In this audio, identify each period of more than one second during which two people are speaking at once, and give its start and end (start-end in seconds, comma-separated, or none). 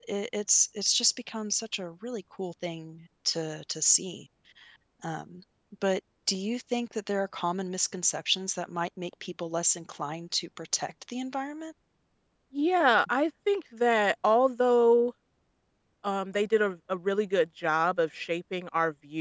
none